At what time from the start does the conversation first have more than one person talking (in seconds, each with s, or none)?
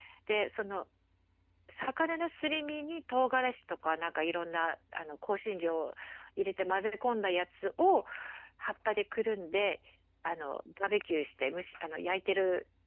none